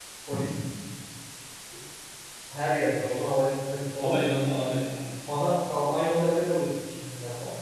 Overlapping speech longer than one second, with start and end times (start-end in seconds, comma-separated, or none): none